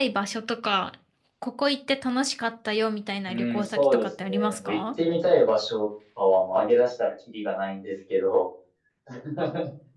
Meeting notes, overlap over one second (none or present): present